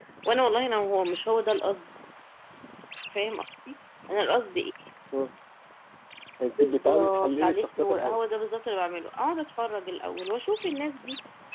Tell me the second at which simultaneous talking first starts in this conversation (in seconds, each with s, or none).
6.6 s